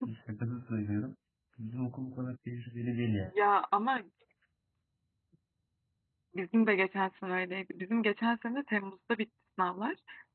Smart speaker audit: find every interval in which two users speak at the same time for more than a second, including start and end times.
none

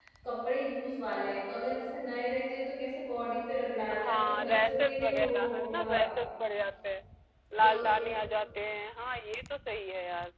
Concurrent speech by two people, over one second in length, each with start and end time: 4.0-6.2

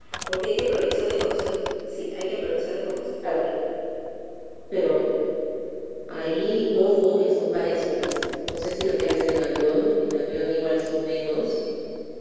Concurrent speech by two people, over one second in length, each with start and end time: none

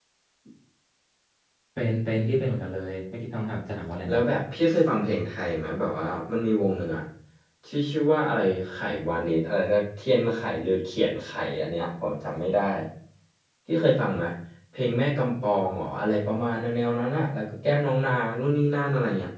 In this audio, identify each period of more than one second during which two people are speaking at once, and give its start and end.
none

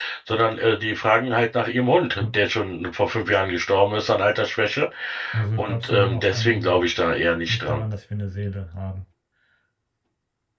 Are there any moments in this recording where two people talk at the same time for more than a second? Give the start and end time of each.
5.6-6.8

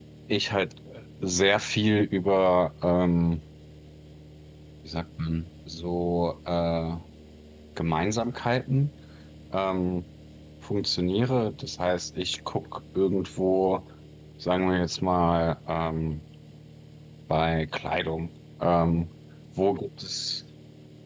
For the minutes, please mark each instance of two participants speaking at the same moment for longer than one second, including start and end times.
none

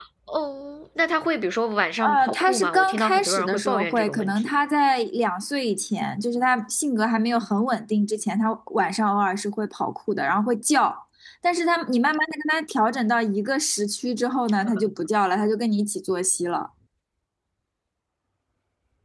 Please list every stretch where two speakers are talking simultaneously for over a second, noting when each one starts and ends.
2.0-4.5

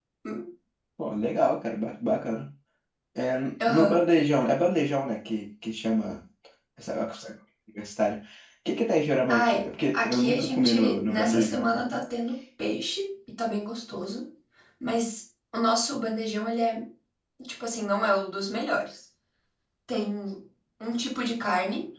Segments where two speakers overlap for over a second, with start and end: 9.3-11.8

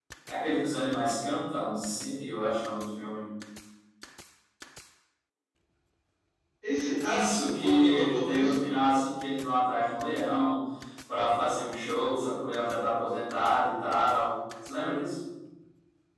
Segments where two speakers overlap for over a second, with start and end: 7.0-8.7

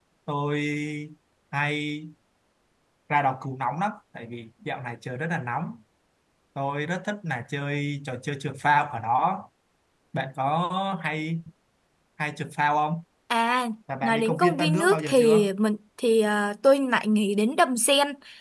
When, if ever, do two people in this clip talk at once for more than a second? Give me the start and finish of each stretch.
14.0-15.5

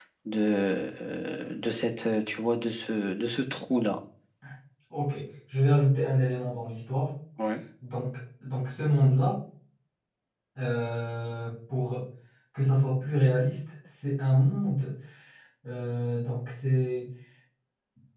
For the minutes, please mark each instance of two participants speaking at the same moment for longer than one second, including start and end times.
none

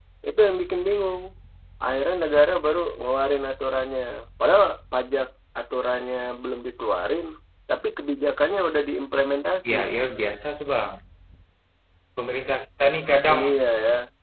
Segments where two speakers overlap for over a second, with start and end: none

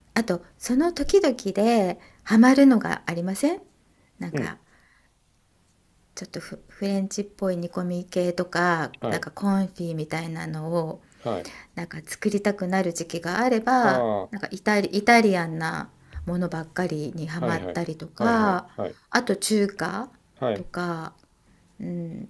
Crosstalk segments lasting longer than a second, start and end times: none

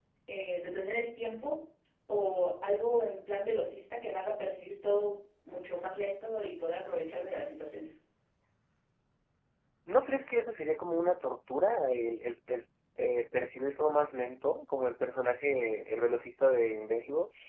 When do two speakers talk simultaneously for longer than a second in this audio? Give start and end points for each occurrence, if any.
none

